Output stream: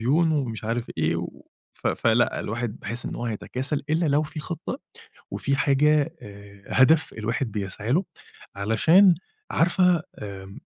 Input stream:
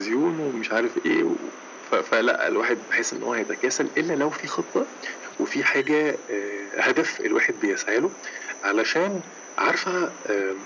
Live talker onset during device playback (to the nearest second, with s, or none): none